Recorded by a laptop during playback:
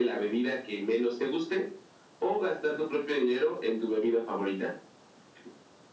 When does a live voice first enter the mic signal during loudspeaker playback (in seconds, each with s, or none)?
none